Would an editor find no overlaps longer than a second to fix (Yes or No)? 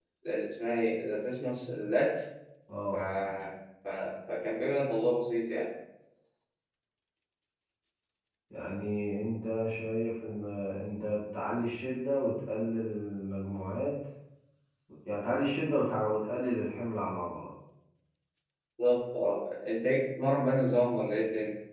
Yes